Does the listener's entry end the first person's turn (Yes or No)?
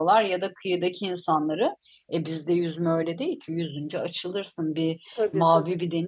No